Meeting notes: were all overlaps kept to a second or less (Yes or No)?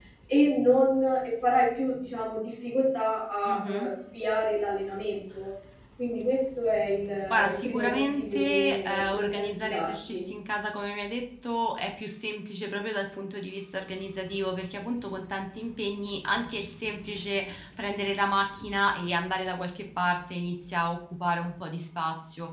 No